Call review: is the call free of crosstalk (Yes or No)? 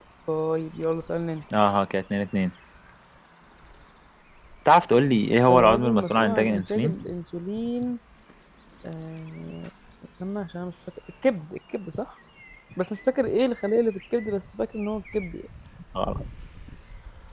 No